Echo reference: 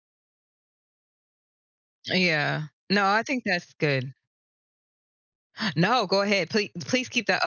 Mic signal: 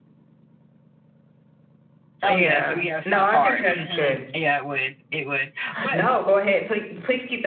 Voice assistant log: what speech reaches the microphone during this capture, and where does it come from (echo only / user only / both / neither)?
both